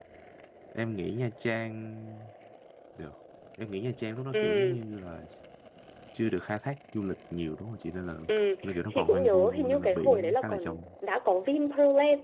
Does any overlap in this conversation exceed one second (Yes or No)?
Yes